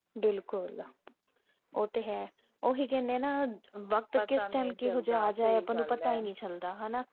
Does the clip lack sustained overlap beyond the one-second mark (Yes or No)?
No